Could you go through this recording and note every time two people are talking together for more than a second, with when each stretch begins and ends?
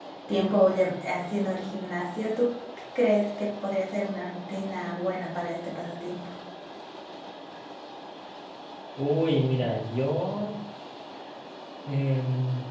none

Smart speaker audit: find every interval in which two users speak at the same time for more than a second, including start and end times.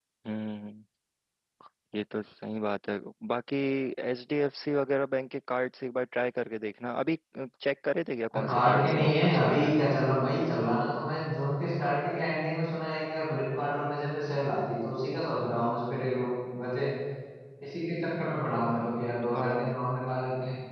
8.5-9.8

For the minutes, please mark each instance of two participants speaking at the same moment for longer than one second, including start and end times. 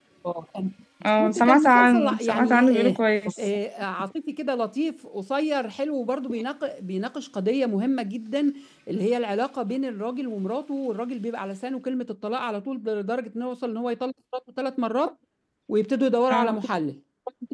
1.1-3.0

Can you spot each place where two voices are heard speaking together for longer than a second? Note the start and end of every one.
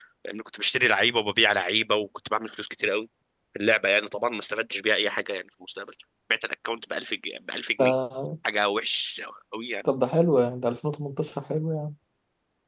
none

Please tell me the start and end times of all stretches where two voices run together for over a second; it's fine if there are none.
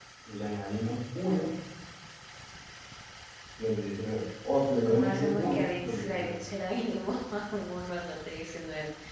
4.8-6.3

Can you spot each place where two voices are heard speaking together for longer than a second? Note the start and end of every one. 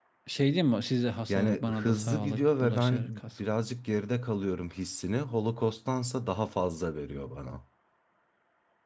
1.3-3.2

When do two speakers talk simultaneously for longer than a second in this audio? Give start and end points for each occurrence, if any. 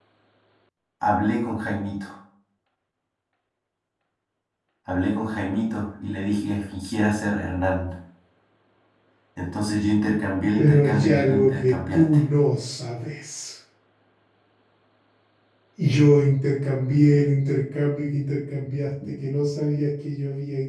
10.6-12.0

